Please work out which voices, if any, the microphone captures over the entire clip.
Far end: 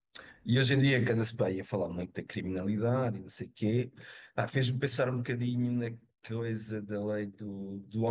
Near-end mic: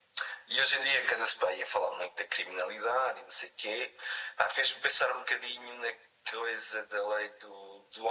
echo only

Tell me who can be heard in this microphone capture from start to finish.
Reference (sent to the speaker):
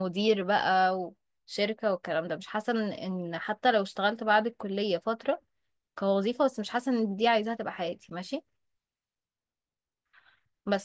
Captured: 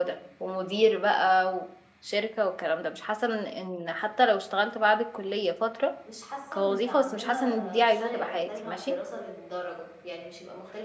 both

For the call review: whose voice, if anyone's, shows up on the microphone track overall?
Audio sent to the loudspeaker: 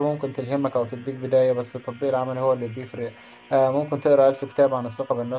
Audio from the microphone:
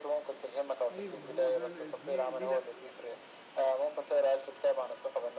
both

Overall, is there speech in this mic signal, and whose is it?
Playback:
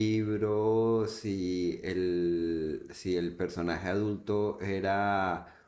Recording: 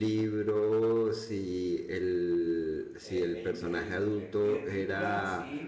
both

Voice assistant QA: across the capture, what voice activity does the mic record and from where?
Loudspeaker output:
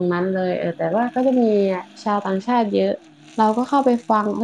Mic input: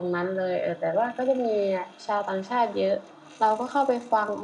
echo only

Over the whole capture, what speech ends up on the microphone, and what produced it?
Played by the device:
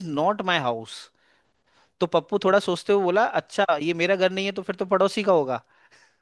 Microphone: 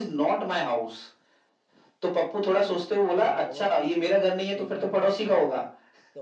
both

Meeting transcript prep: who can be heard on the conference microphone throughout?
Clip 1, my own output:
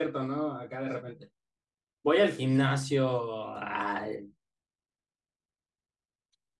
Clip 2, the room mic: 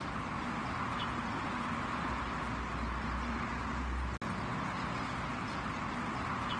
neither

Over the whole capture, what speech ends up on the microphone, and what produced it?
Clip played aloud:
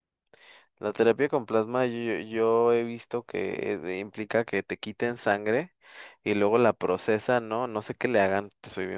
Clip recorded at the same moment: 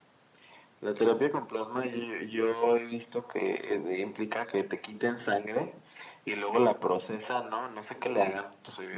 echo only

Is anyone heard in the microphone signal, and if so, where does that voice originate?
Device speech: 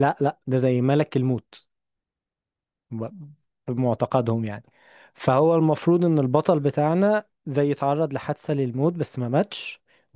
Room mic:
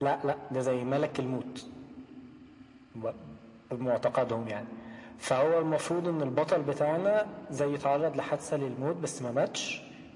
echo only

